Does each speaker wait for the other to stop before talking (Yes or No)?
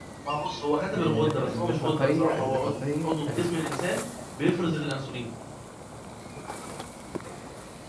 No